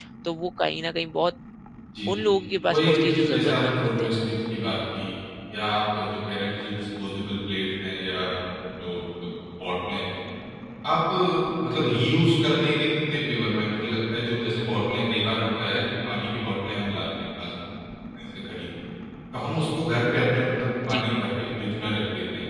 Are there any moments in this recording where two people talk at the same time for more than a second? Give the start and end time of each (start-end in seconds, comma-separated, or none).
2.7-4.1